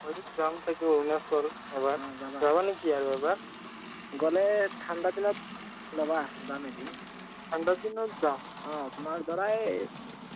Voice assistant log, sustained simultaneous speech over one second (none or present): none